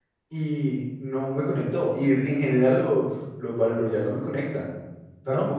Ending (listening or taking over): listening